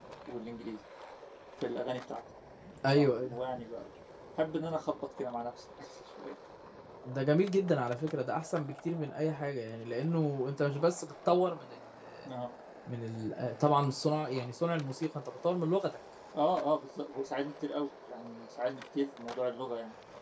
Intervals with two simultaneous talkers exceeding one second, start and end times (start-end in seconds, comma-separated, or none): none